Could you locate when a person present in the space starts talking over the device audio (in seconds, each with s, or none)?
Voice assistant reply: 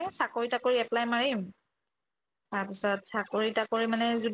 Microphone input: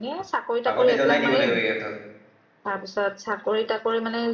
0.7 s